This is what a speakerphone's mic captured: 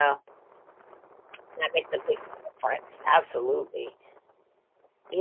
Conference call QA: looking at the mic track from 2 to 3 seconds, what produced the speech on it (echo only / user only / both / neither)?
user only